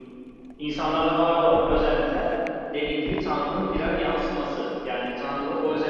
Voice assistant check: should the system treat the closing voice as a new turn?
No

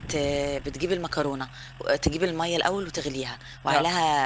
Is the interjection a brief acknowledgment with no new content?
Yes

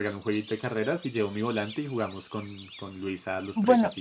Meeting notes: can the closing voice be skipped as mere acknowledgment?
No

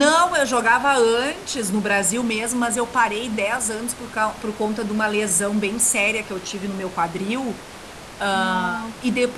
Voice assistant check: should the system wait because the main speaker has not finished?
Yes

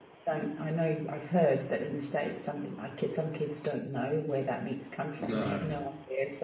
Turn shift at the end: No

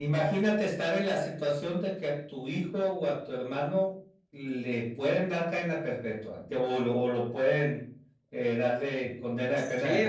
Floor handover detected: Yes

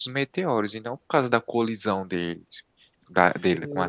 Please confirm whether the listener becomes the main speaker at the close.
Yes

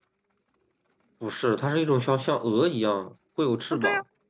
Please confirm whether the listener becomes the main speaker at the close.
Yes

